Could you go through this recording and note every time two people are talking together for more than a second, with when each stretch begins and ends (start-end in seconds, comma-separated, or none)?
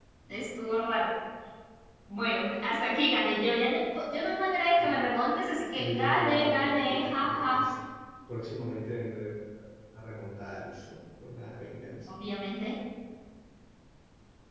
5.7-7.6